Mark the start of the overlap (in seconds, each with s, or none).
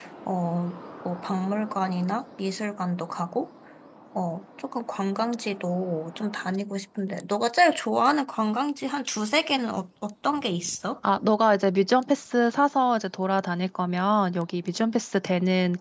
none